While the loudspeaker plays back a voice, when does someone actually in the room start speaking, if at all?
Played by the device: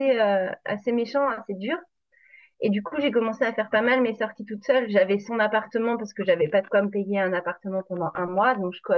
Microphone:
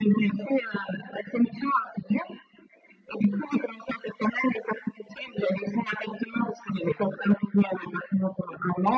none

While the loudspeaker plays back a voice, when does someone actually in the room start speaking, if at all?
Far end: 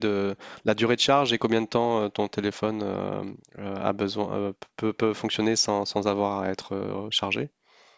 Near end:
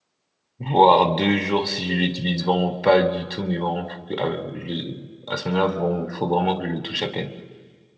0.6 s

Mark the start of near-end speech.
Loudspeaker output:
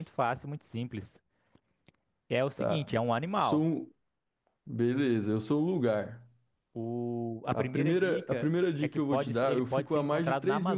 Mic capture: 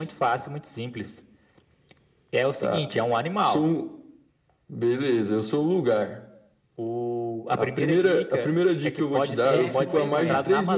9.4 s

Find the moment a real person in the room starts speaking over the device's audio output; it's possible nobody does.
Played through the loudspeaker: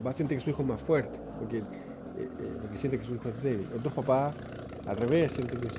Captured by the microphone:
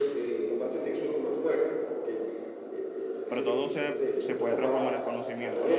3.3 s

